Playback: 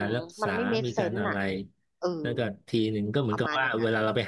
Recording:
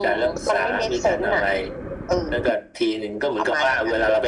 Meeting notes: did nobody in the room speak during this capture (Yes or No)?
Yes